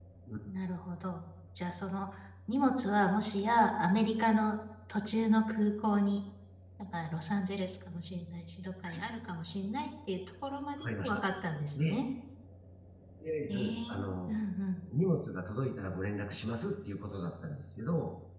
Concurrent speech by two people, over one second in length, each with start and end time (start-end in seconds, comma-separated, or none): none